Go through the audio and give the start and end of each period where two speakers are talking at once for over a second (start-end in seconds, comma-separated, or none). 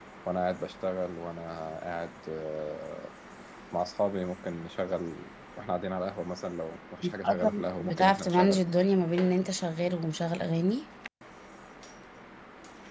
7.2-8.6